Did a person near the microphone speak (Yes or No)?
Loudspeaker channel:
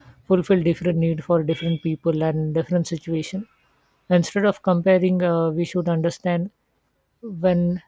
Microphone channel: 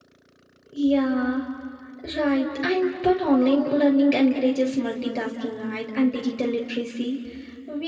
Yes